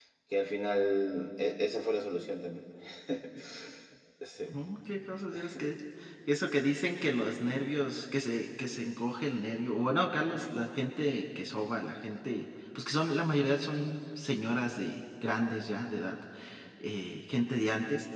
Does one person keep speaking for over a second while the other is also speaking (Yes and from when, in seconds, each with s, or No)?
No